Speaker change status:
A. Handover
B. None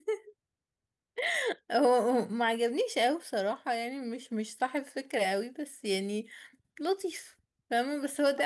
A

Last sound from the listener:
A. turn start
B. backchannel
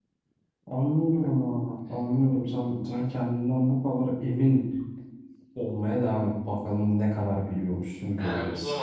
A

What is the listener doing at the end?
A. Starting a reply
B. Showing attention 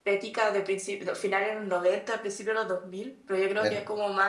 B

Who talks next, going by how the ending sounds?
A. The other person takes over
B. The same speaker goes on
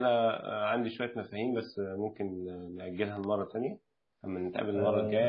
B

